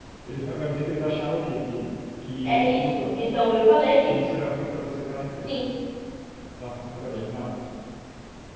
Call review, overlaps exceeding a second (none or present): none